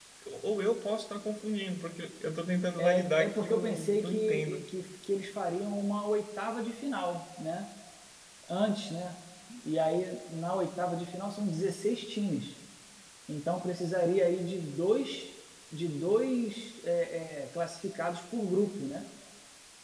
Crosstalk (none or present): present